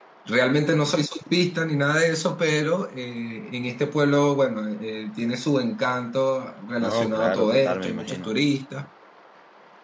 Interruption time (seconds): 7 s

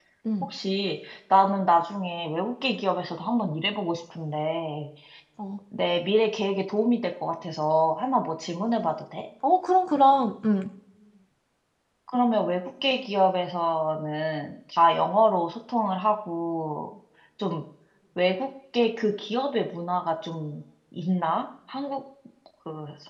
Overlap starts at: none

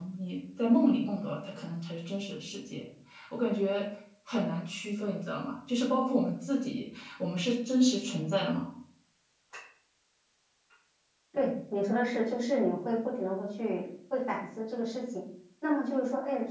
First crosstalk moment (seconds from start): none

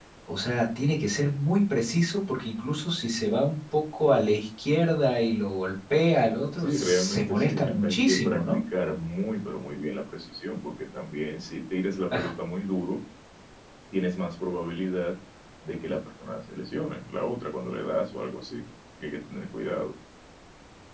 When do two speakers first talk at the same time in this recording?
7 s

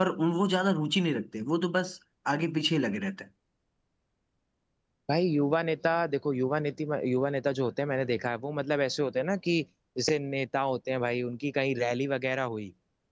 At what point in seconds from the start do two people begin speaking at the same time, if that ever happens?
none

